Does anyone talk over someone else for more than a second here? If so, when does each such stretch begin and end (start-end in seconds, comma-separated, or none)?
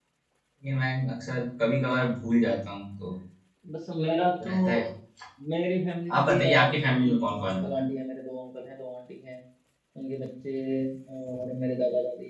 6.2-7.7